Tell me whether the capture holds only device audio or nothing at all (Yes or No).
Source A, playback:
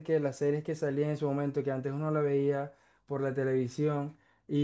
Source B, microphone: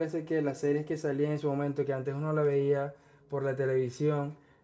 Yes